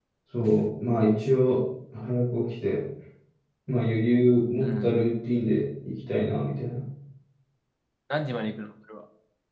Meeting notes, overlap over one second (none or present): none